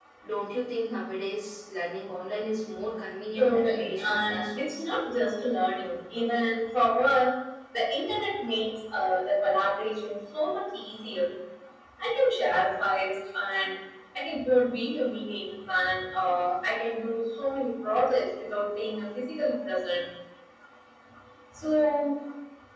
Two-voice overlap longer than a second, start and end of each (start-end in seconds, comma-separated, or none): 3.4-4.8